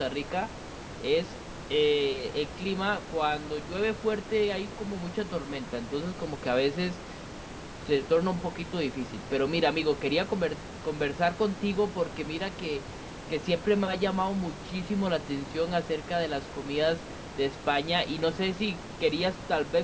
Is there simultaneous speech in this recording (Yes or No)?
No